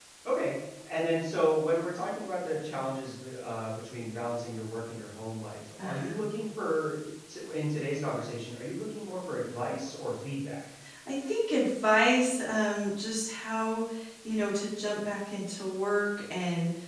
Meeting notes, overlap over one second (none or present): none